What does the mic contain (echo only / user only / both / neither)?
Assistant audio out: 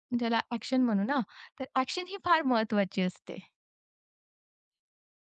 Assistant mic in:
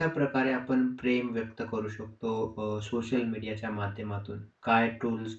user only